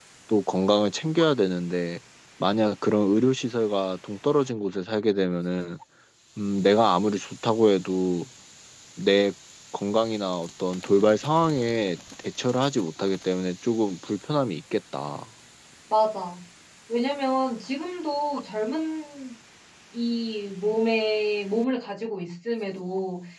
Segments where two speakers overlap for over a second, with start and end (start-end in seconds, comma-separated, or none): none